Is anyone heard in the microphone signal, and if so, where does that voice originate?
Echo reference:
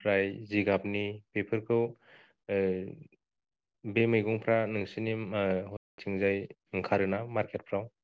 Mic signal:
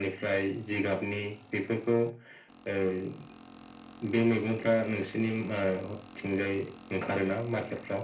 echo only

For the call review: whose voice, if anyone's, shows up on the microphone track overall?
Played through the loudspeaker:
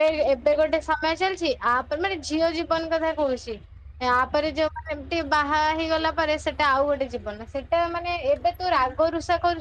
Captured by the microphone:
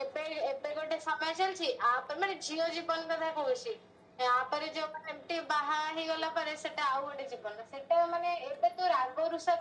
echo only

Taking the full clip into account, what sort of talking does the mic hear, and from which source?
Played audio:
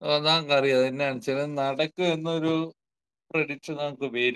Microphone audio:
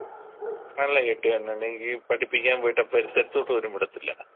user only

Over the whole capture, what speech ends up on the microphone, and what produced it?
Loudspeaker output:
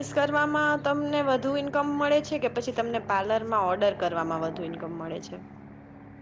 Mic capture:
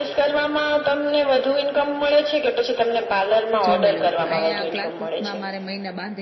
both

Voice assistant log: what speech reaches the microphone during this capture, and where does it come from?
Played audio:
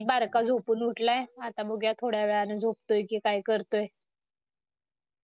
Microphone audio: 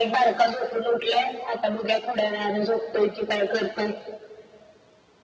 echo only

